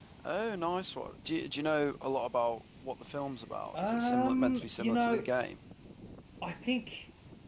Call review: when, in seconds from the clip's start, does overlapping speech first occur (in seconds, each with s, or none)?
3.7 s